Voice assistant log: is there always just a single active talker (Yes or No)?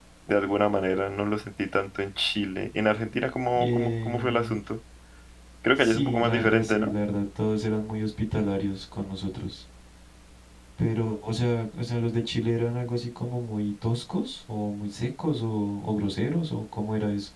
No